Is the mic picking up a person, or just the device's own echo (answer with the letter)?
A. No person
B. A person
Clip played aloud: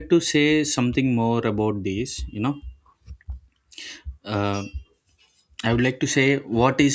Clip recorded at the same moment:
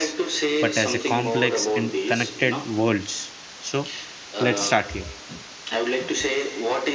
B